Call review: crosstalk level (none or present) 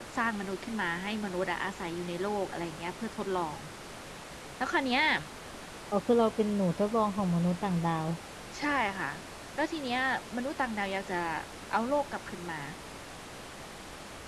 none